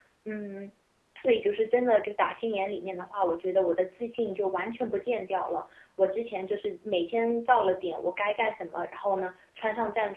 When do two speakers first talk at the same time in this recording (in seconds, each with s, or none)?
none